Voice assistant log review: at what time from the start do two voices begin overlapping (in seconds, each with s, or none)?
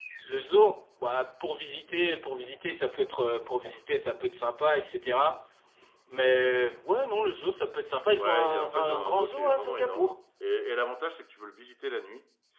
7.9 s